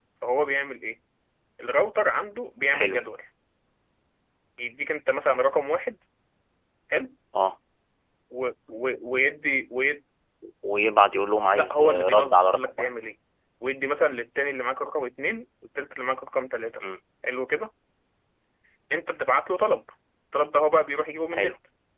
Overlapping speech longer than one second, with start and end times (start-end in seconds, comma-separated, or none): 11.5-12.9